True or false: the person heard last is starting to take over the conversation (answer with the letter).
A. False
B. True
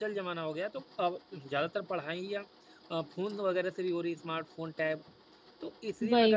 A